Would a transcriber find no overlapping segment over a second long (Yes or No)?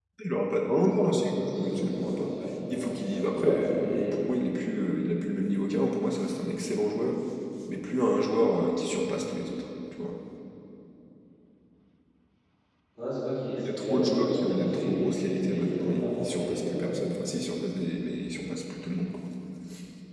No